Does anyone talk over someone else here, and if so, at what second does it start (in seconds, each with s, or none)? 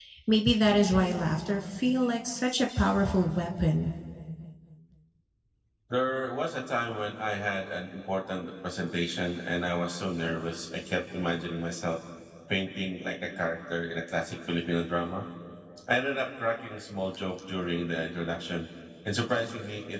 none